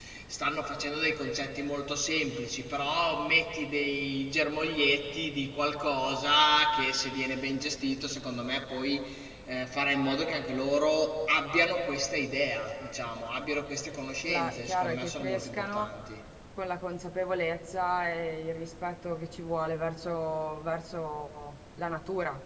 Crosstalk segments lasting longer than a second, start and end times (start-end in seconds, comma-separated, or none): 14.3-15.9